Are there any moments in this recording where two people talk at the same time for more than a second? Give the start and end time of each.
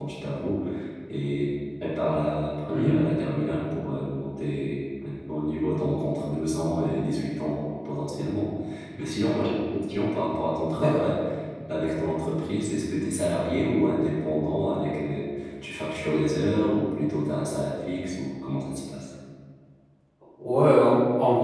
none

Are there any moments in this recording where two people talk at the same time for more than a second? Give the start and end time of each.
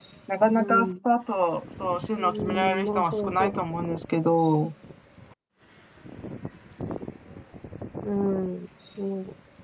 2.2-3.5

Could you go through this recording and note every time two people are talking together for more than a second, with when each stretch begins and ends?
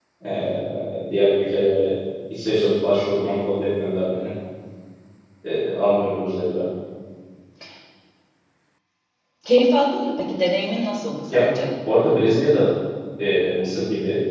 none

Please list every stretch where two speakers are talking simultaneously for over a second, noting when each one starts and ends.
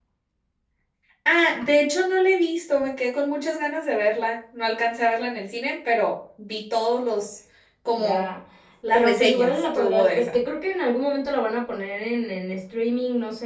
8.9-10.4

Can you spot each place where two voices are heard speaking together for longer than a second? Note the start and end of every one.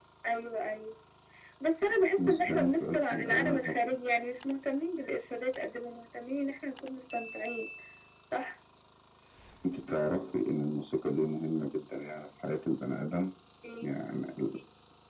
2.2-3.8

